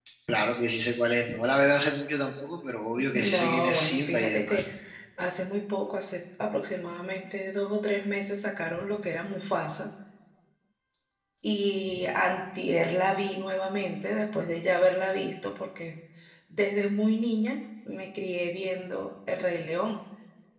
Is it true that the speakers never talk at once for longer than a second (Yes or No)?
No